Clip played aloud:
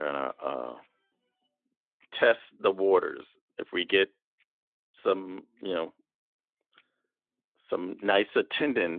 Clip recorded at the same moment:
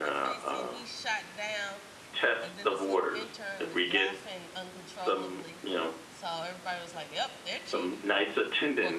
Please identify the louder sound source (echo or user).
echo